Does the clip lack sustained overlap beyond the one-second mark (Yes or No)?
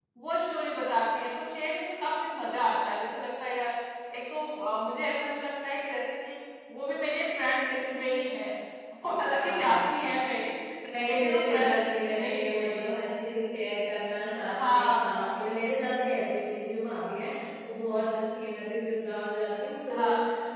No